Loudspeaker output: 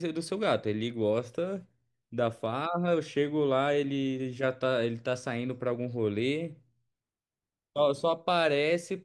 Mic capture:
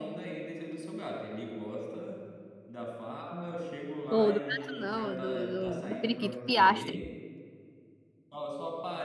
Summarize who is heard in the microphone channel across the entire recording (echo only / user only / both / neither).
both